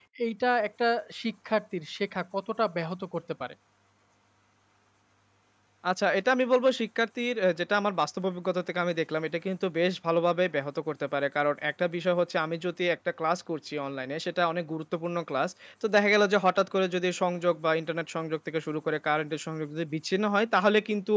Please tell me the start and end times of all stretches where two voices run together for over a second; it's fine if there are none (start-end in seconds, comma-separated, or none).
none